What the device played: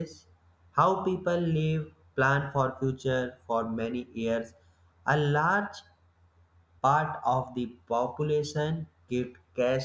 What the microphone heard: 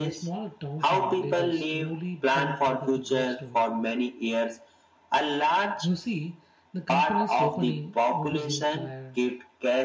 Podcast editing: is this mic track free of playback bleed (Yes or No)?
No